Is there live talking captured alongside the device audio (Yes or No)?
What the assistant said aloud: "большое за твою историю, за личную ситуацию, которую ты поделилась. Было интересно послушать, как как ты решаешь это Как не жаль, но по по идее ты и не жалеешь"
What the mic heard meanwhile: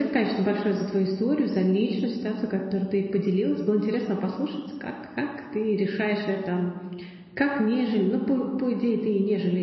No